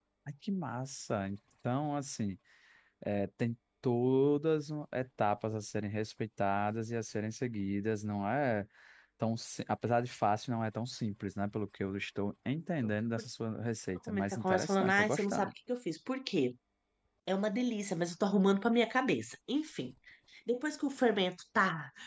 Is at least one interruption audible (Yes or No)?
Yes